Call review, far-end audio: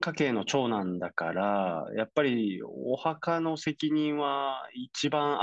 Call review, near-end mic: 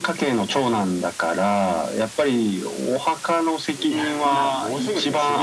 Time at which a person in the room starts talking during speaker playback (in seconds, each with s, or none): 3.8 s